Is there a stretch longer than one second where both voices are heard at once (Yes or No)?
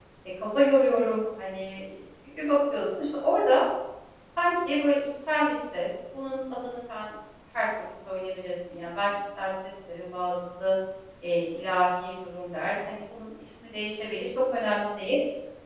No